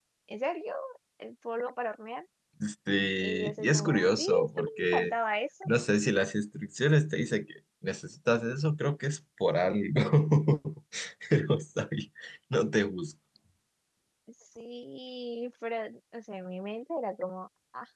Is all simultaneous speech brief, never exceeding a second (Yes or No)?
No